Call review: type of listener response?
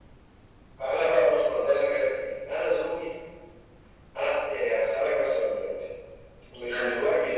listening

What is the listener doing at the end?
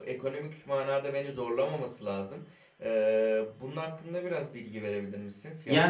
taking over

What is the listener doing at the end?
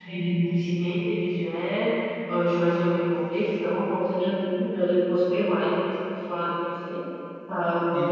listening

